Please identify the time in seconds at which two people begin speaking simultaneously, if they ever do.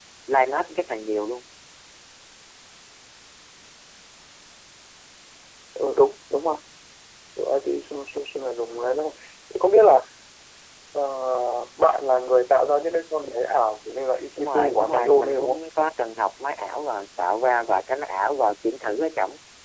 14.4 s

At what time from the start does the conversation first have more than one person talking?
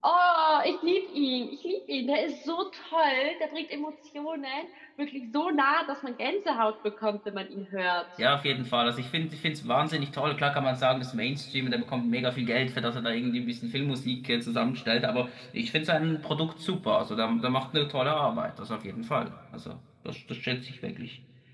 none

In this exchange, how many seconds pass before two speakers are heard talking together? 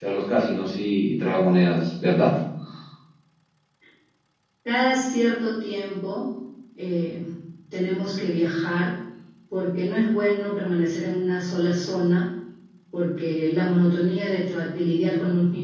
none

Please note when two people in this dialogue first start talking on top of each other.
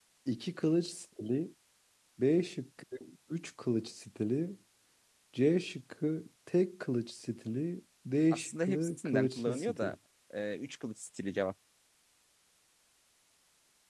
8.3 s

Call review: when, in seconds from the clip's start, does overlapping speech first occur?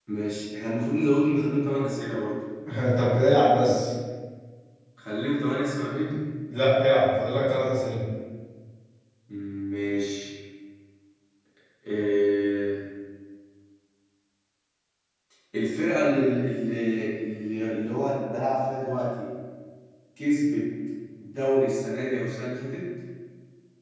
none

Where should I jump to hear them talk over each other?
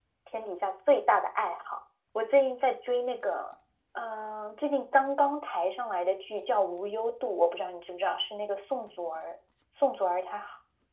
none

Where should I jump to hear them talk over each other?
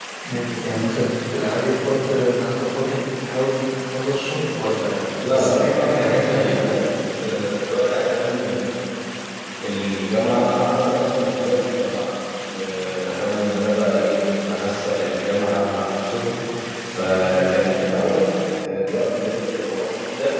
5.2 s

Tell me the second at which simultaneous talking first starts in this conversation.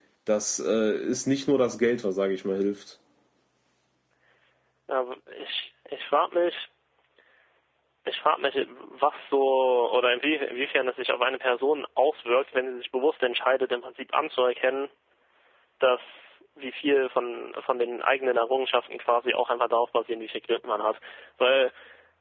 none

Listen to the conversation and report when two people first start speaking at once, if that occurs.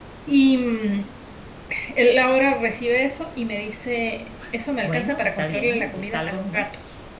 4.8 s

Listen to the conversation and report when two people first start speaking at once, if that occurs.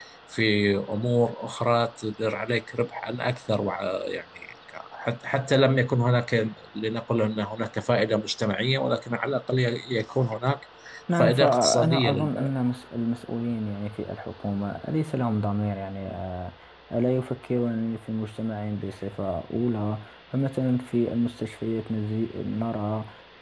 11.2 s

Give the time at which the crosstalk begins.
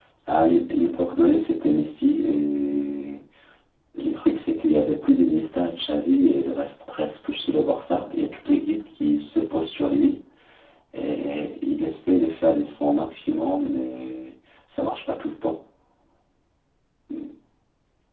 none

